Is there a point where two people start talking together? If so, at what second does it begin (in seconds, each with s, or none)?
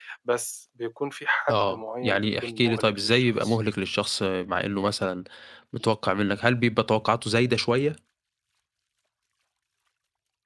1.5 s